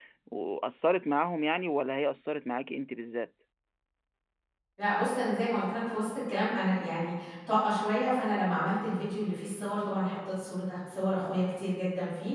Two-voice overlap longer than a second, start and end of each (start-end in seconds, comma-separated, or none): none